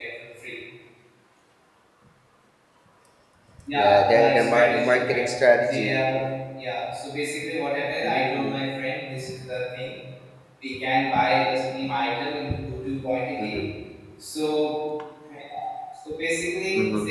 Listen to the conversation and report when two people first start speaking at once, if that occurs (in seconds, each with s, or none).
3.8 s